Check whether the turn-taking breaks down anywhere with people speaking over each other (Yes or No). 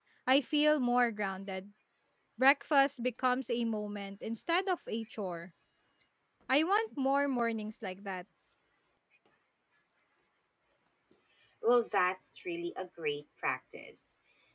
No